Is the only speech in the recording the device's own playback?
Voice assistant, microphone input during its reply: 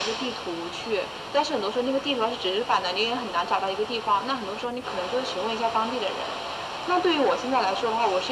Yes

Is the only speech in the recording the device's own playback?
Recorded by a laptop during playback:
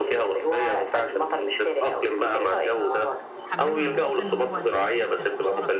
No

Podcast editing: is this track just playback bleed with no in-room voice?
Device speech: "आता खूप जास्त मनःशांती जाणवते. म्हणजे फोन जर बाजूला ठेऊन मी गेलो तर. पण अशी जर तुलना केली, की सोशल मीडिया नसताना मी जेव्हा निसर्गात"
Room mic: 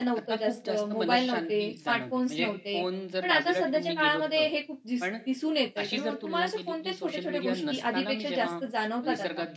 No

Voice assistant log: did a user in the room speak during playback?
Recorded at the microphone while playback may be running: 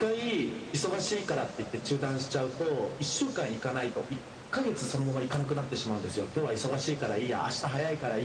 No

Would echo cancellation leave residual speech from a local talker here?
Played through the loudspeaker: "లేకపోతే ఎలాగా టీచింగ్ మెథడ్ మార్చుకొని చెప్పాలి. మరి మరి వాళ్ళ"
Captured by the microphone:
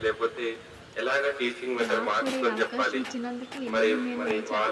Yes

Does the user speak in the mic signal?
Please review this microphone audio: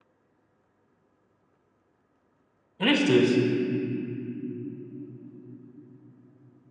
Yes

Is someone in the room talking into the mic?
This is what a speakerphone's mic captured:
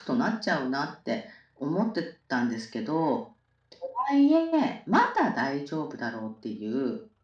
No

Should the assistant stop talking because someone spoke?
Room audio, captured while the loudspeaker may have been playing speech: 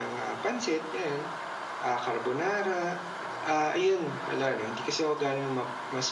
Yes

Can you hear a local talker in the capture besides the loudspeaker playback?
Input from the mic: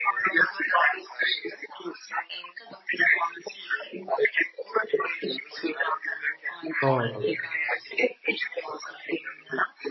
Yes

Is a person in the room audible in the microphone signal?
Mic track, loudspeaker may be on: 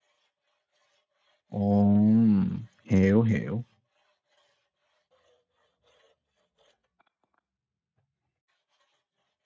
Yes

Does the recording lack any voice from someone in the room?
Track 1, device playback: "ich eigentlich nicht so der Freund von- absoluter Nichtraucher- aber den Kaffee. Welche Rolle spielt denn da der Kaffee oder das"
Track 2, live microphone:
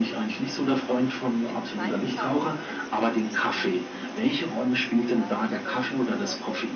No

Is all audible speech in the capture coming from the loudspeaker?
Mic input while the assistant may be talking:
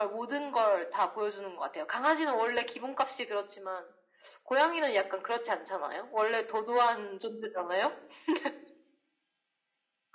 Yes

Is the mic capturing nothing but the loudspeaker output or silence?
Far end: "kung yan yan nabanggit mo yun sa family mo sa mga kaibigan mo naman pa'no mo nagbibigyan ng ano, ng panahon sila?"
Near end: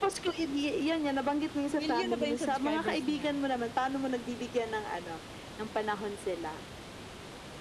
No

